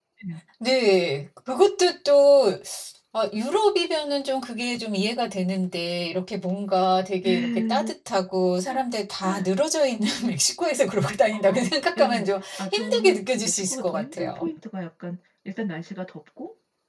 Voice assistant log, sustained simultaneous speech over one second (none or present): present